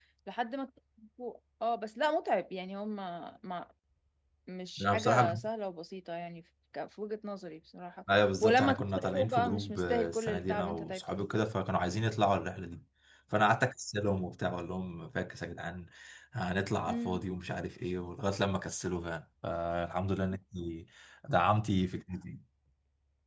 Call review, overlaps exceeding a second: present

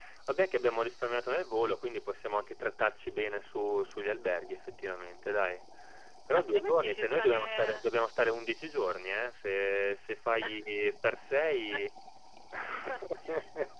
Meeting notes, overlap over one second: present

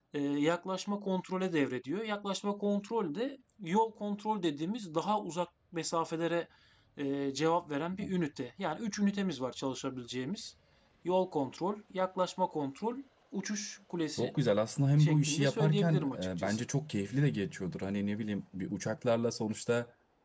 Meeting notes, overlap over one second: present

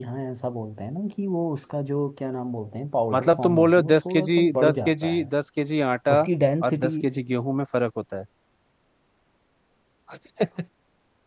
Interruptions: present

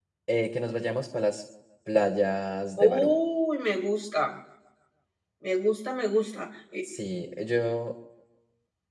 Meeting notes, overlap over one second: none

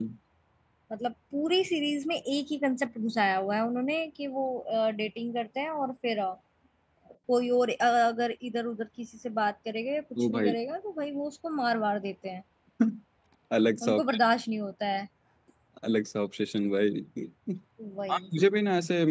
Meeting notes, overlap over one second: none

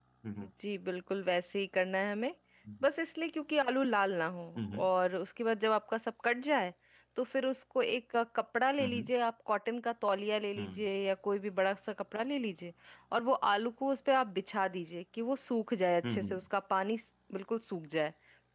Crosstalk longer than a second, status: none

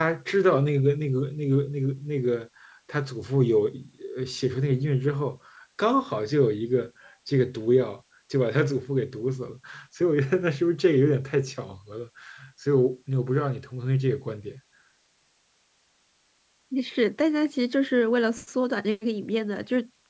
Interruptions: none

